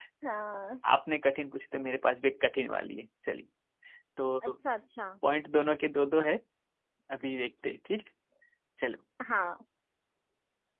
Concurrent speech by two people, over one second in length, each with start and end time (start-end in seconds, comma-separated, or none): none